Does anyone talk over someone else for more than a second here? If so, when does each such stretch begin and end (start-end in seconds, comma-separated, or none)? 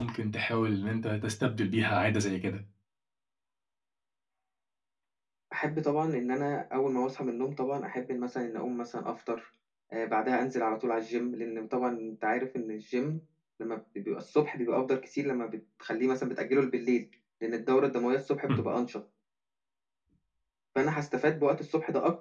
none